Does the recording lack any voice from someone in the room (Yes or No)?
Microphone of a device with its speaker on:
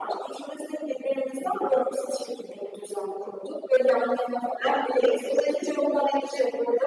Yes